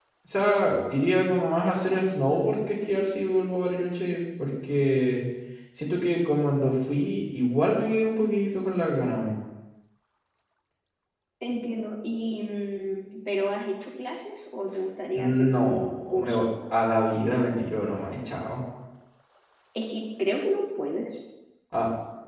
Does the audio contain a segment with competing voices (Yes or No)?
Yes